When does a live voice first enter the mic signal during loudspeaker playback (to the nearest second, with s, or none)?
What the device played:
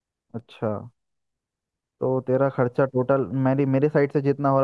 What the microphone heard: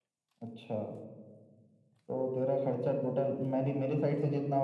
none